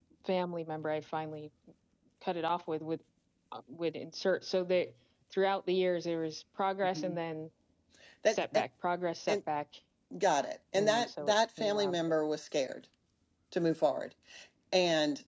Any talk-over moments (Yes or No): Yes